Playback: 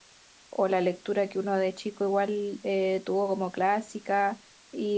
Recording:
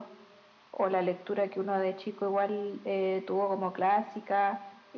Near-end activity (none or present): none